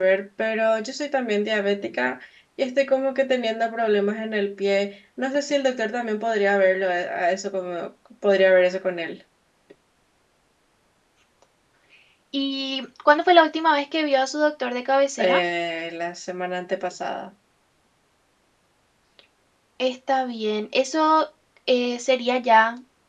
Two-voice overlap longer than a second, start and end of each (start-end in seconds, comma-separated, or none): none